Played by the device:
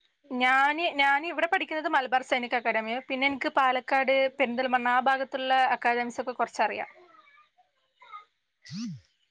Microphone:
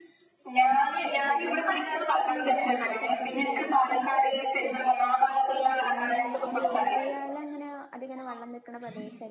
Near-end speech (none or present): present